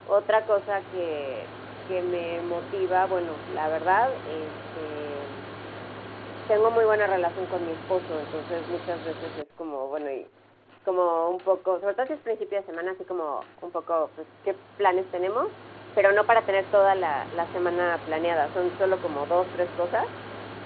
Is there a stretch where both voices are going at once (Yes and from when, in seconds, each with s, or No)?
No